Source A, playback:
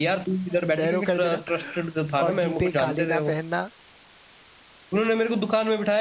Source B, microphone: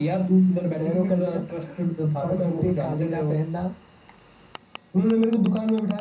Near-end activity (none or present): none